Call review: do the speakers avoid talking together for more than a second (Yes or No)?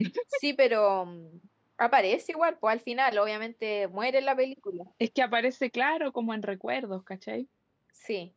Yes